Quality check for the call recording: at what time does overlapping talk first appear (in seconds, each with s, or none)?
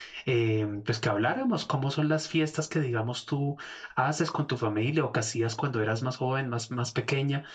none